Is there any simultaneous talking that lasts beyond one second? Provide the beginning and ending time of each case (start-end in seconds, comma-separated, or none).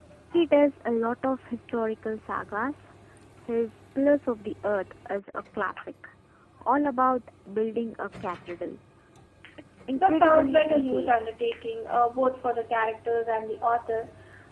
9.9-11.2